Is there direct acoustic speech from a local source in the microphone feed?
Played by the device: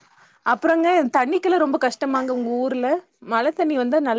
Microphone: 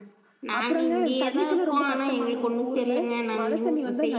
Yes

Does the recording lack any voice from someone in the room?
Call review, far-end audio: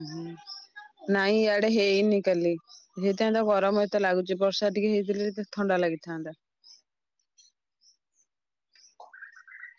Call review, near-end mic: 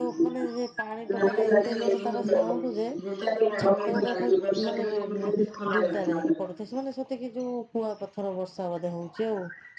No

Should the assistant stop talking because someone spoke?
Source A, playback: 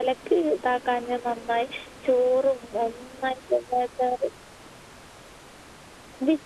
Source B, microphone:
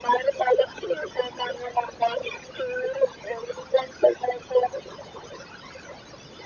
No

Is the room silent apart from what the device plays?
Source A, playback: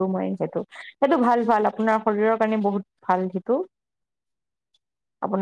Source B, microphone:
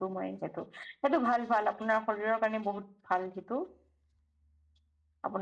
Yes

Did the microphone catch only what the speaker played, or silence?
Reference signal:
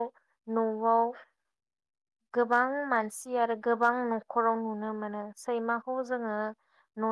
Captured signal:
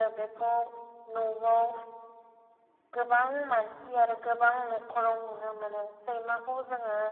Yes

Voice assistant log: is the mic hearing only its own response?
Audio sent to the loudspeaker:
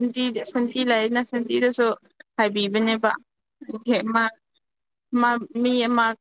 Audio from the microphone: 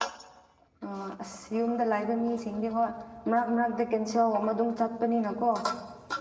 No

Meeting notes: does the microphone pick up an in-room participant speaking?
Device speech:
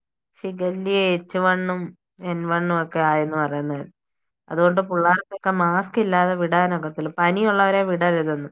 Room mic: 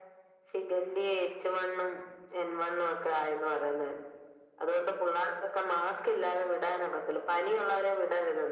No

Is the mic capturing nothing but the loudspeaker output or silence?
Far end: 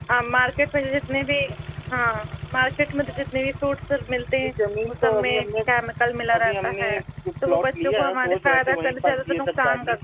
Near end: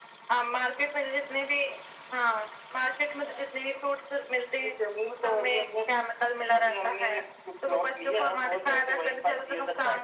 Yes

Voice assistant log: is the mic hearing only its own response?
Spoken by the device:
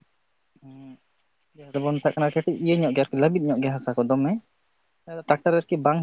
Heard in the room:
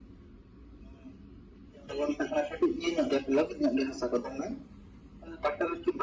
Yes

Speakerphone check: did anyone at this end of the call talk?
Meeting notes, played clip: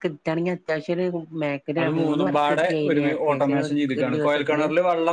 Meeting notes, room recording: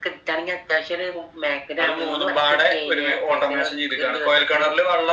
No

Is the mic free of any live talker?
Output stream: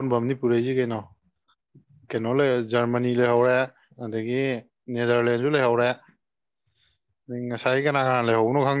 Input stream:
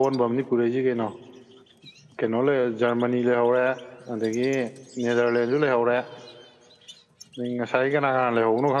Yes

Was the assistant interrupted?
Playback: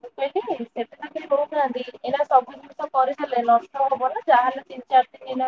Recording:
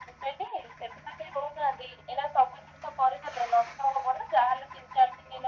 No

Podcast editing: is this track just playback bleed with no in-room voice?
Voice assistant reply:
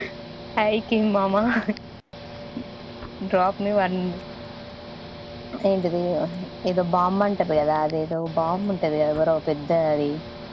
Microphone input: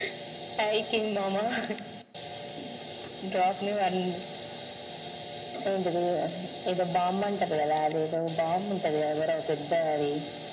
Yes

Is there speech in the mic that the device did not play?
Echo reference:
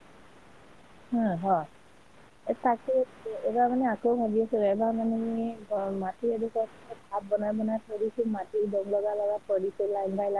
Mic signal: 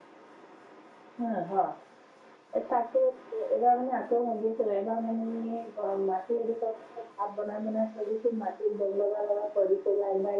No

